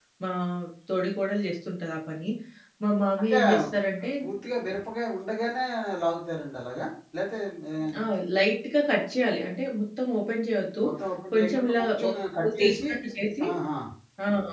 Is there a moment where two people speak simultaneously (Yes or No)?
Yes